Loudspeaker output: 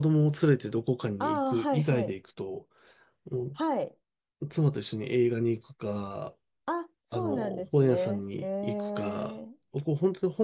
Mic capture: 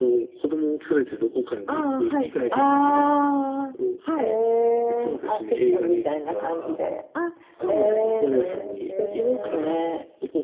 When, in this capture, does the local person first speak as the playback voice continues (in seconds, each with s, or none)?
2.5 s